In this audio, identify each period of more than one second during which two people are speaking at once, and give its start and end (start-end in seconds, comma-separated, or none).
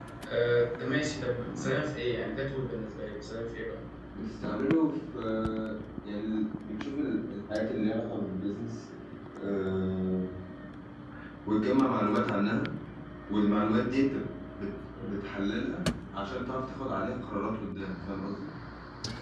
none